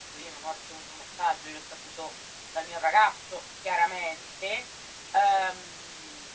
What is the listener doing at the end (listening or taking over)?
listening